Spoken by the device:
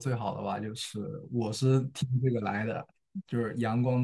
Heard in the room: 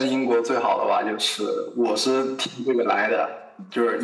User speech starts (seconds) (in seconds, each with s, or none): none